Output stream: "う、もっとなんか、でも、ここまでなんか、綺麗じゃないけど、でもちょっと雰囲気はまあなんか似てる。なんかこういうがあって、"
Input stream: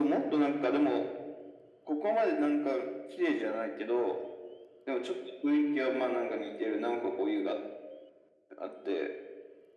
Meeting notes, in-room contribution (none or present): none